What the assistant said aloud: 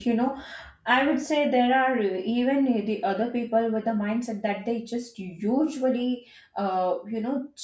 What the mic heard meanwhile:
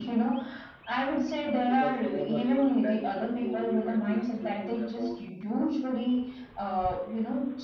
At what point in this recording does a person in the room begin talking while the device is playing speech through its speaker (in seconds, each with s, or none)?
1.6 s